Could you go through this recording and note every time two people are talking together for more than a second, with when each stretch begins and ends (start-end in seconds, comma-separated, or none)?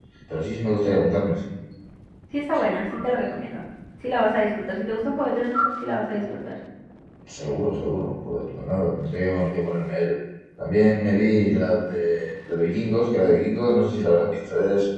none